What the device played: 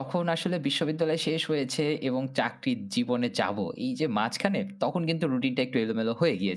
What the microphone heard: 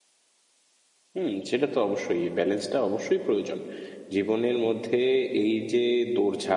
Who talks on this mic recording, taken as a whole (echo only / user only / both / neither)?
user only